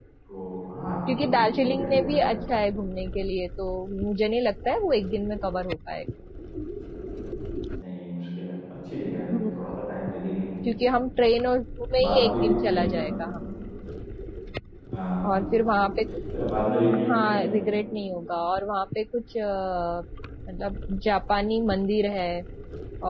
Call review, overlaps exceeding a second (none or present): present